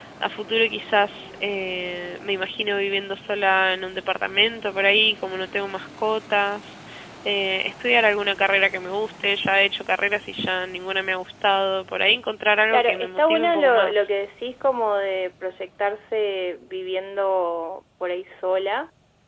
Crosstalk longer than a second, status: present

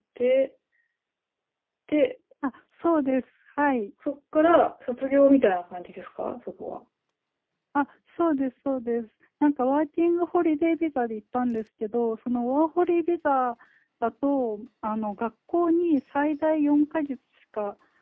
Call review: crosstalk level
none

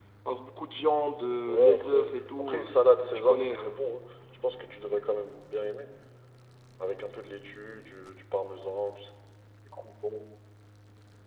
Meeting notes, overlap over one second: present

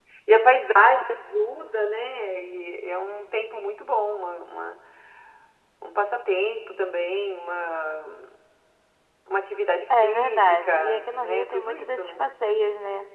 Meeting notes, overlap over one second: present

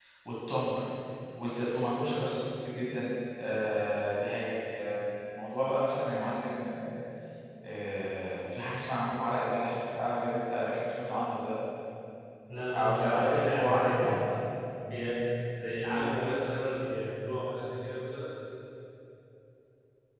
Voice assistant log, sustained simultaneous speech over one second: present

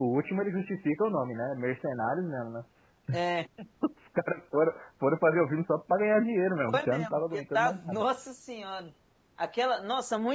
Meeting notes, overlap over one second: present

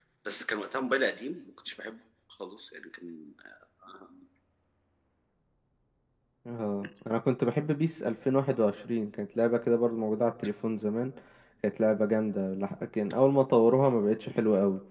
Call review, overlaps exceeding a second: none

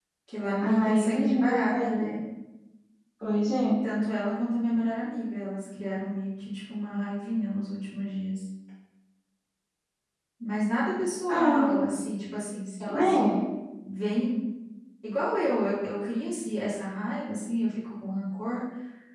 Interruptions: present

